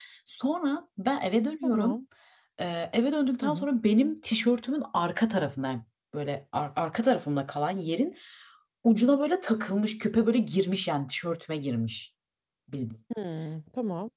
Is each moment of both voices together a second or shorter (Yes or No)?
Yes